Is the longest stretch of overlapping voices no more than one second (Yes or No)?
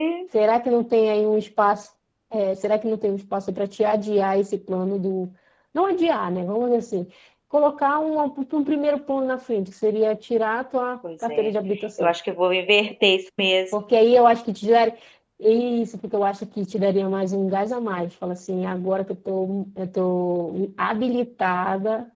Yes